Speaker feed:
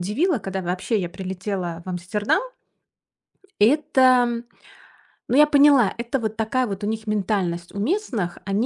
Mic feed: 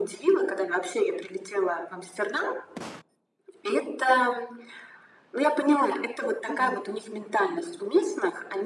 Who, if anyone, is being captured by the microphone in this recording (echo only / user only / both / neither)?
both